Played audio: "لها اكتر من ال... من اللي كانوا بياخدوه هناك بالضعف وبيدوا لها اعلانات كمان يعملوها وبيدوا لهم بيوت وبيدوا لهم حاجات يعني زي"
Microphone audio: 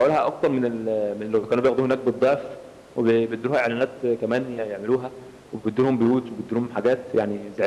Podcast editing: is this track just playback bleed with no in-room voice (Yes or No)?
Yes